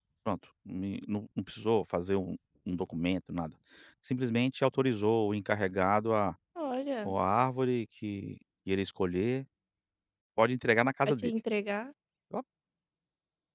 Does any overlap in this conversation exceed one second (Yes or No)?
No